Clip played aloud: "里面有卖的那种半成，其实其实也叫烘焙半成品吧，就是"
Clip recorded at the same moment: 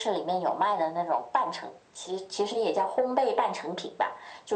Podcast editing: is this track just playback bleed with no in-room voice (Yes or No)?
Yes